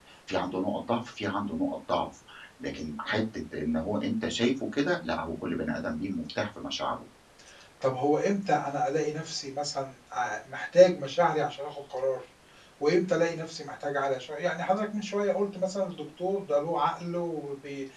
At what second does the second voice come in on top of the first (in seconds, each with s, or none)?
none